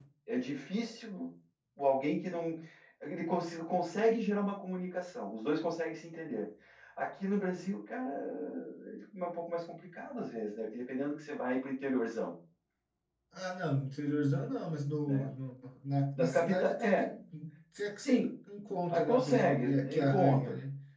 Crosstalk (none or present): present